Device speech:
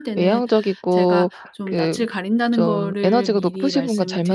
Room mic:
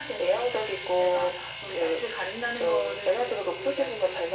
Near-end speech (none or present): none